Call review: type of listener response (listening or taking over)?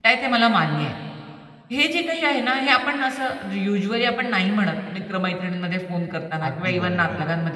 listening